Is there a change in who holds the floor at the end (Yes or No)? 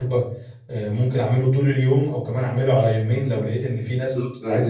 Yes